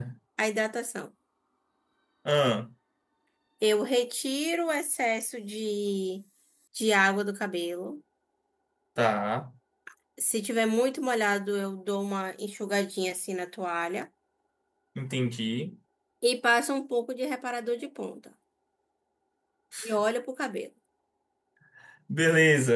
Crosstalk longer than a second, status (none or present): none